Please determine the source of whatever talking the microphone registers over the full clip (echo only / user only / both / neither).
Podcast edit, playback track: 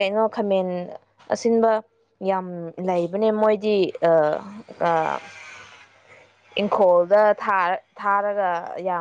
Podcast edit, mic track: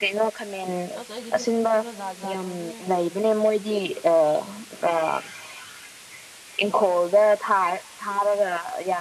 both